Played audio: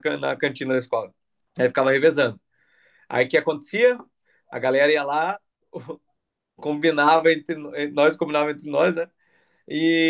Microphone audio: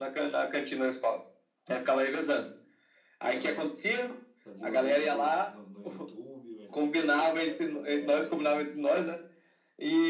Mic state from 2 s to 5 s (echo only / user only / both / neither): both